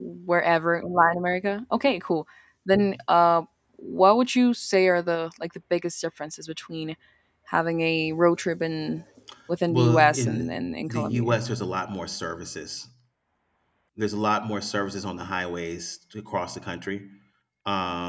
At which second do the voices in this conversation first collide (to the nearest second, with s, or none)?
10 s